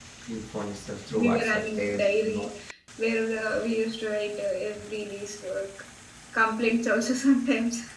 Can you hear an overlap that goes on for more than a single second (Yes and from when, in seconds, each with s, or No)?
Yes, from 1.2 s